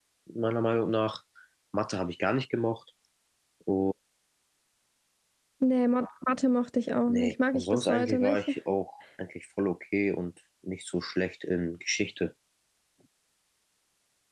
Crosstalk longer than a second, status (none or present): present